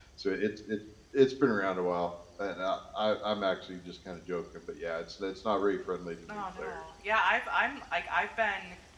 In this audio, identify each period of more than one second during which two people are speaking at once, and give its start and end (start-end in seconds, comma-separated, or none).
none